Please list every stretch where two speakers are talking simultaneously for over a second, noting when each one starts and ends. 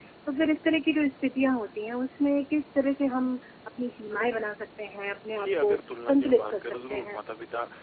5.4-7.2

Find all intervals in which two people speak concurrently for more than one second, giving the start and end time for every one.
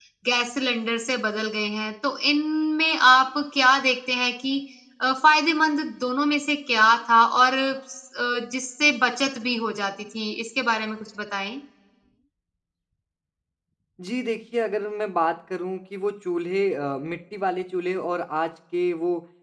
none

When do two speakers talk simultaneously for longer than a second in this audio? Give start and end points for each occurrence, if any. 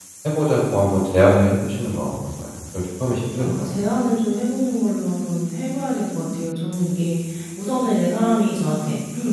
none

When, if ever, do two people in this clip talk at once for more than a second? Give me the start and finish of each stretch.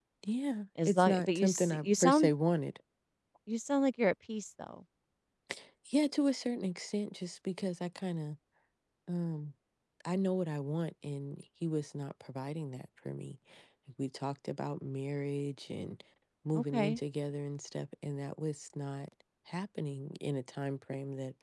0.8-2.3

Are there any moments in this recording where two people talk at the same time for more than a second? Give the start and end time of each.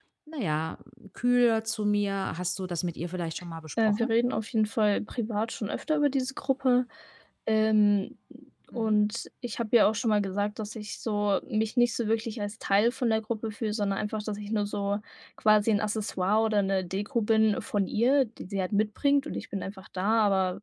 none

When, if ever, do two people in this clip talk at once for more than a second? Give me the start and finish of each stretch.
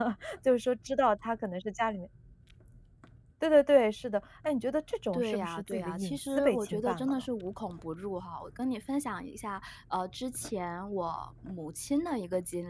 5.1-7.2

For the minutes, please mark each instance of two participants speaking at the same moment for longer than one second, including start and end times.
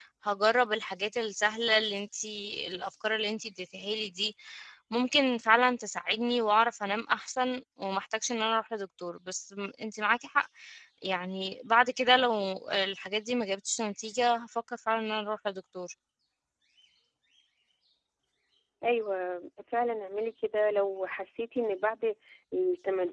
none

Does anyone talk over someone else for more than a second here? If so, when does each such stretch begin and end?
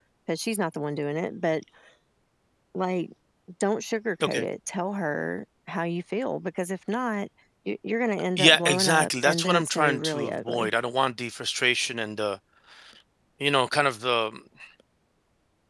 8.4-10.7

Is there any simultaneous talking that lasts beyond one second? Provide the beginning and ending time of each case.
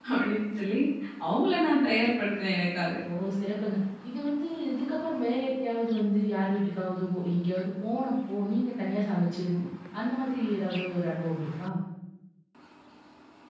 none

